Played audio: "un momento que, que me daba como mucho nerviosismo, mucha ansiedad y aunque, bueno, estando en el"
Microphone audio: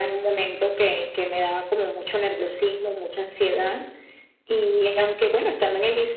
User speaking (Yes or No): No